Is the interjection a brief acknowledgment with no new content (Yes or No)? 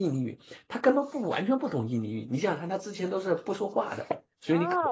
No